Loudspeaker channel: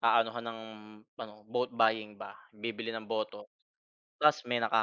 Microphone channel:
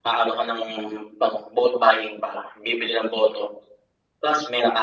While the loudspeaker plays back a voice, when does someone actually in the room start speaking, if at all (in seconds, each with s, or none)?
none